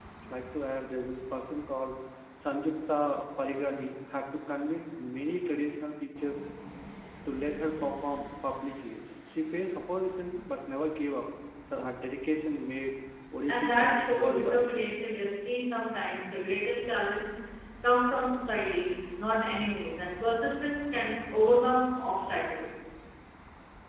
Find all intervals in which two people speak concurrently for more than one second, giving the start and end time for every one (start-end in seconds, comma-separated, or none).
13.5-14.7